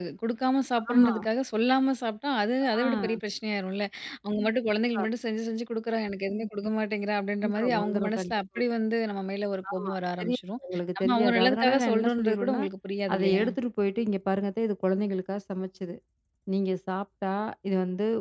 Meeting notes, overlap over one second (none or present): present